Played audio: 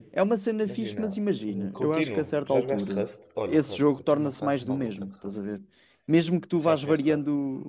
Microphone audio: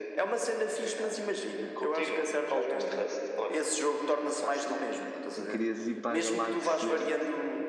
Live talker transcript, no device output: e querias ir para a galáxia

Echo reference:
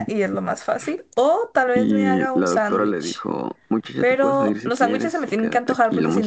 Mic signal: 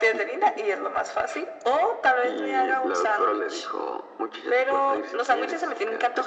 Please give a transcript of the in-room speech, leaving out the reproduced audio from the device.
none

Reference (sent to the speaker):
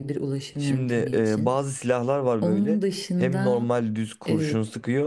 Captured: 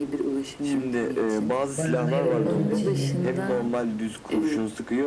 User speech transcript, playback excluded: Barınmayı robotun içinde.

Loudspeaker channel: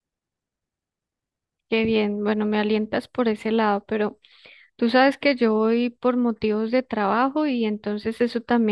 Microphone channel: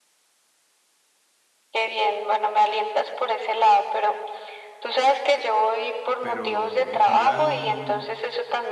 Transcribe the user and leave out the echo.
pero en general,

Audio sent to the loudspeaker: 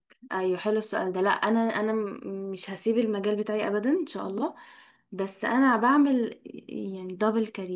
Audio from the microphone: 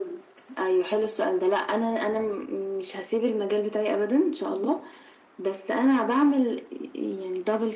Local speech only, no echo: none

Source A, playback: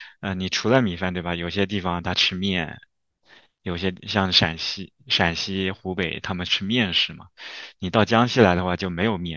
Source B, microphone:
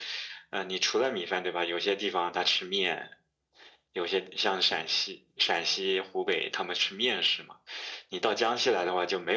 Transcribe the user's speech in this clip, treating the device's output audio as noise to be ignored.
none

